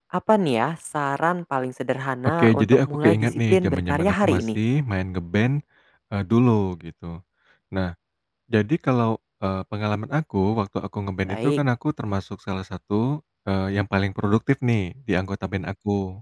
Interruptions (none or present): present